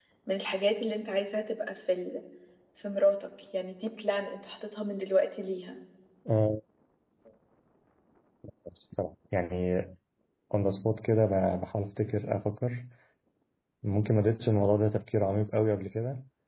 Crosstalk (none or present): none